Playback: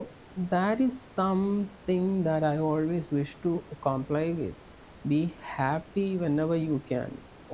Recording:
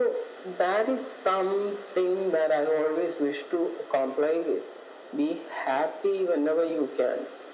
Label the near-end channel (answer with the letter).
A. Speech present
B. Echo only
B